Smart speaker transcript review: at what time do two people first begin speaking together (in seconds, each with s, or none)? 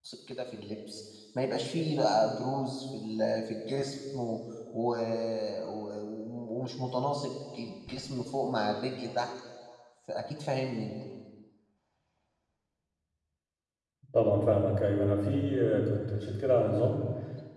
none